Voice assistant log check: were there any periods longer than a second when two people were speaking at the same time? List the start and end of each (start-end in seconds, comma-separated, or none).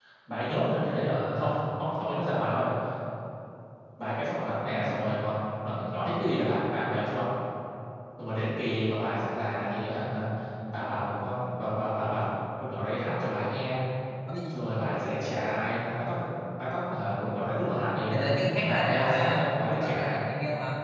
18.1-20.2